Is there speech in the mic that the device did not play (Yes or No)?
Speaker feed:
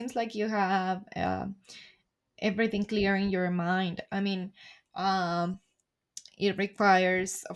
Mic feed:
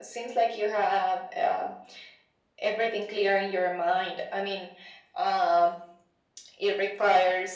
No